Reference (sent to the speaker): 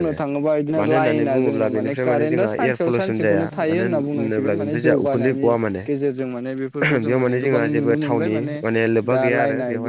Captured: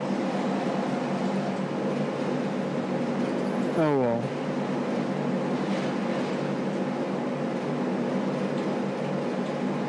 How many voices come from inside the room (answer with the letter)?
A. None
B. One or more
B